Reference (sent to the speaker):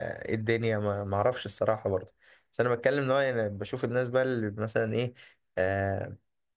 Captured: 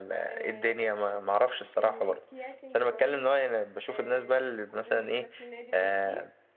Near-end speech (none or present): present